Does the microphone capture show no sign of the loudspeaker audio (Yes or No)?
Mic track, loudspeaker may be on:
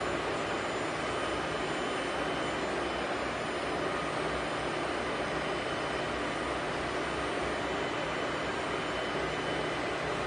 Yes